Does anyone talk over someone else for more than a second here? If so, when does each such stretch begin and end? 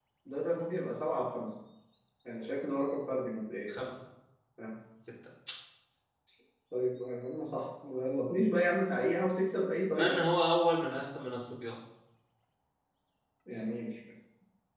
none

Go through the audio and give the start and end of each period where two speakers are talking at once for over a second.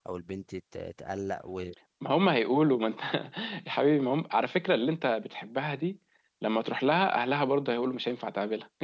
none

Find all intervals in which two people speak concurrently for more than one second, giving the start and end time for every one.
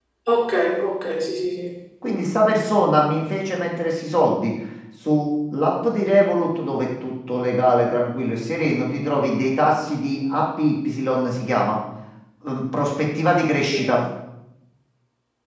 none

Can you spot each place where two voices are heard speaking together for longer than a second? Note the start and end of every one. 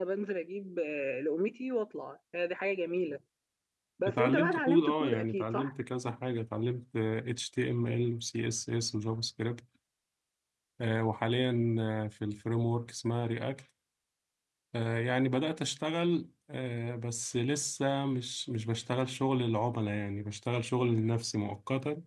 4.1-5.7

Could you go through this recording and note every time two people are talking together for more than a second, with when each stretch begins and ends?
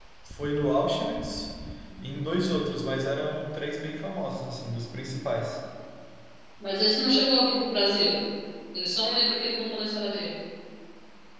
none

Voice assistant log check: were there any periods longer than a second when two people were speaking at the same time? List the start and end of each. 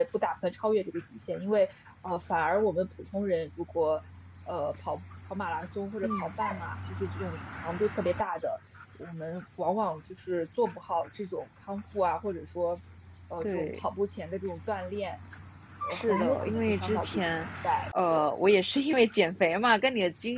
15.9-17.3

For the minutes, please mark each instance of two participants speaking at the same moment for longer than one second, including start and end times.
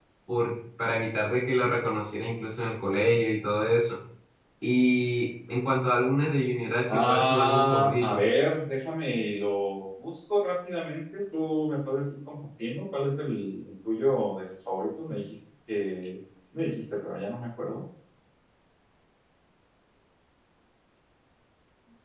6.9-8.2

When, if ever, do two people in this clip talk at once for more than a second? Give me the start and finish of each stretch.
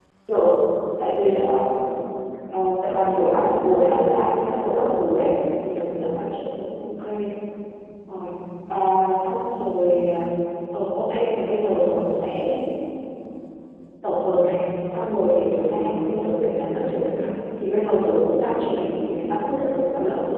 2.8-4.9

